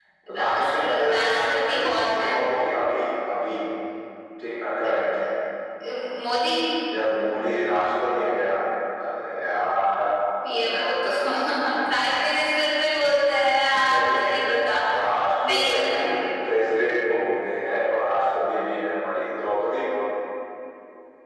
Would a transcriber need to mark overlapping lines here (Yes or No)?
Yes